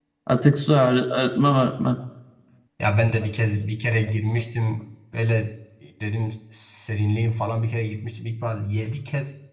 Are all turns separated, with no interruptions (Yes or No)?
Yes